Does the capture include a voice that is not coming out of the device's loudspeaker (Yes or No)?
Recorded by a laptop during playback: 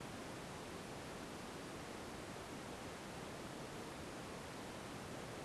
No